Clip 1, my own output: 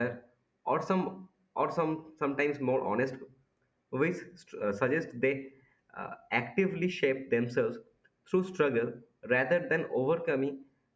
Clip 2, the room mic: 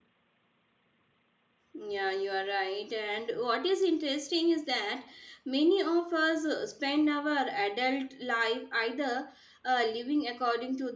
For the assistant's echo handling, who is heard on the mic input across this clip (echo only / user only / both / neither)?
user only